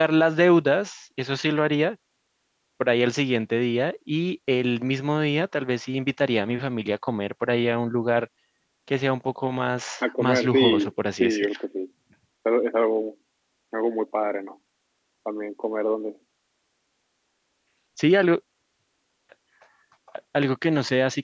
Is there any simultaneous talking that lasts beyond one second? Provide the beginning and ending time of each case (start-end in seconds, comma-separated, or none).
10.0-11.6